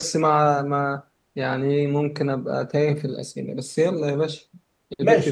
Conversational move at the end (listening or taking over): taking over